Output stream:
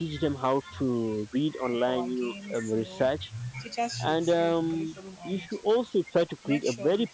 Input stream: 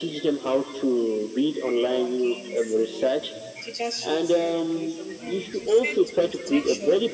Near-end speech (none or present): present